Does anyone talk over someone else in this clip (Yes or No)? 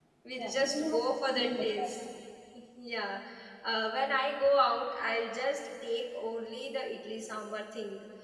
Yes